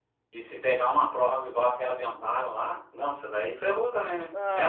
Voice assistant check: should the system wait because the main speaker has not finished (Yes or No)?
No